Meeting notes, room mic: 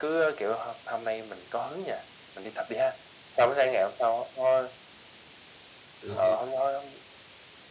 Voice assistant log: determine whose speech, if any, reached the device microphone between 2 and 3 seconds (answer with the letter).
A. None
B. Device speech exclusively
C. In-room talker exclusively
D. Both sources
B